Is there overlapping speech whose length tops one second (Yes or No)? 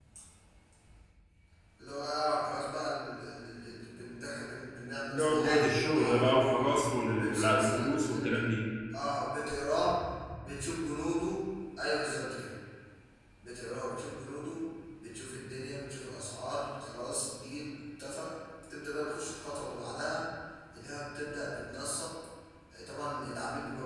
Yes